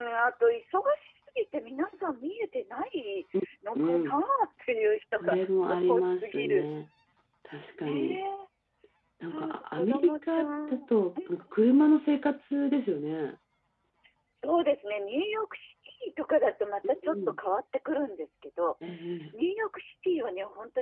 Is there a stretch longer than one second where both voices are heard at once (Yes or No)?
Yes